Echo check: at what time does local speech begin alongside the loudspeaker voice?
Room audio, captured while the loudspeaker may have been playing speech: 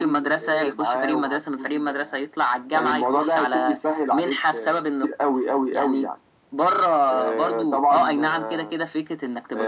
none

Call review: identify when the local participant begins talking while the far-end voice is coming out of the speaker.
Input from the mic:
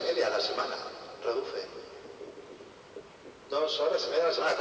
none

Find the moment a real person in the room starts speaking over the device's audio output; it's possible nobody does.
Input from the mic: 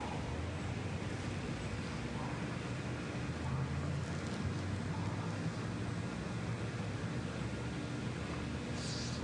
none

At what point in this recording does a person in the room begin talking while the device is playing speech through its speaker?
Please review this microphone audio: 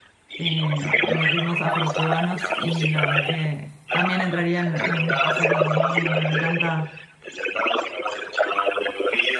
0.4 s

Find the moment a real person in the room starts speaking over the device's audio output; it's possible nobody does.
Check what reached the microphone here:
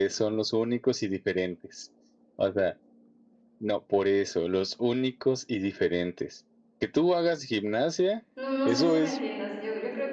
8.3 s

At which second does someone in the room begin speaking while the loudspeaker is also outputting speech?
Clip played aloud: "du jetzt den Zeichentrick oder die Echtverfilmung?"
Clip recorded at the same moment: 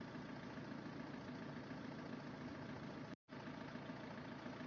none

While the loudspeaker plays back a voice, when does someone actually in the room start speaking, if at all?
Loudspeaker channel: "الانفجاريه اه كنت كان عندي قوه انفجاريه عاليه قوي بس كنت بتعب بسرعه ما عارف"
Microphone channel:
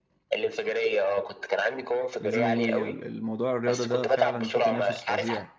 2.2 s

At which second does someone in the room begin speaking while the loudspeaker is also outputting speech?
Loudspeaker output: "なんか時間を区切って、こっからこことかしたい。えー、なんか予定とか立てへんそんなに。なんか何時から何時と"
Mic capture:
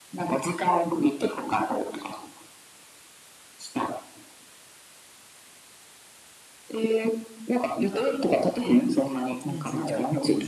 9.4 s

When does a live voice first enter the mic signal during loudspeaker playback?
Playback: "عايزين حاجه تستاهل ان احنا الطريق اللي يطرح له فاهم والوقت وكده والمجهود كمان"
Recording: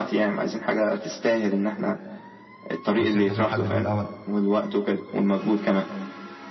2.9 s

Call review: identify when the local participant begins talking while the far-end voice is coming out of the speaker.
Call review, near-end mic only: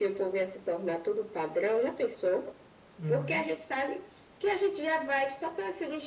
3.0 s

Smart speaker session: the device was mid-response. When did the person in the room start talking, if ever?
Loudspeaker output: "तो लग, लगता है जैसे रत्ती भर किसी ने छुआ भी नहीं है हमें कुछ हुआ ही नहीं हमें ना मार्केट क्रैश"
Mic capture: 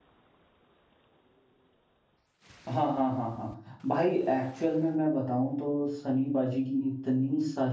2.7 s

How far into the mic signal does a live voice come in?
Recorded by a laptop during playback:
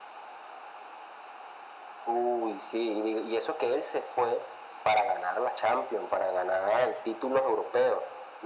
none

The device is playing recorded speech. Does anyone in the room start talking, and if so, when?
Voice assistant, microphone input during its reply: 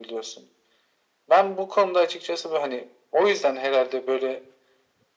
none

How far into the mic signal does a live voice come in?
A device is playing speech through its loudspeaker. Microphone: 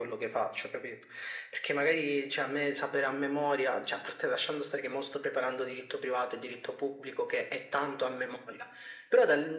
none

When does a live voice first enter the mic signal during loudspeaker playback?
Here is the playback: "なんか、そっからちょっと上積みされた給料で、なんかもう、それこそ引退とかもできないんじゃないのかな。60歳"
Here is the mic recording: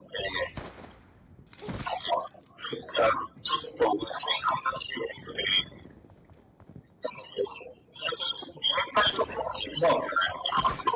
none

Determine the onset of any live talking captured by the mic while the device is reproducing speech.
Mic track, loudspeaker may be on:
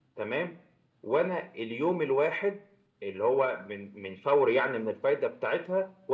none

